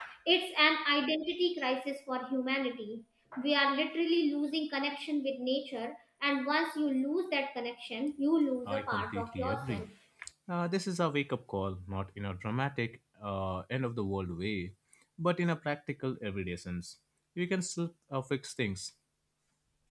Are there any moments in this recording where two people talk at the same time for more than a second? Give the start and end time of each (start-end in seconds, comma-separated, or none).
8.7-9.8